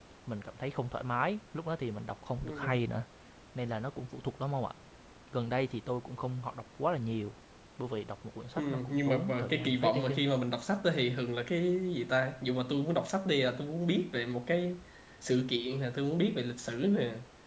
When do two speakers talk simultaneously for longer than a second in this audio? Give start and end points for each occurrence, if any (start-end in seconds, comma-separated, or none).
8.6-10.2